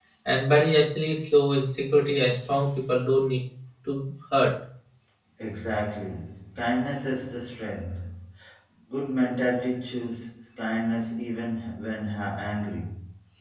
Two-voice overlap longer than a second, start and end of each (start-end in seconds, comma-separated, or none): none